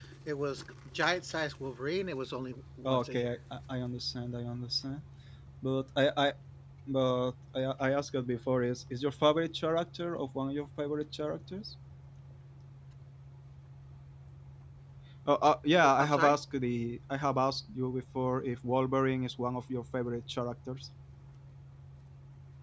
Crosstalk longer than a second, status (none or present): none